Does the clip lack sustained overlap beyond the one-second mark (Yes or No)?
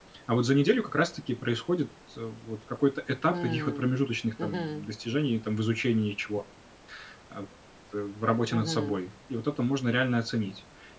Yes